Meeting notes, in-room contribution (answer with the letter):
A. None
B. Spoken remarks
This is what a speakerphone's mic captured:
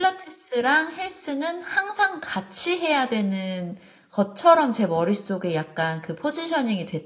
B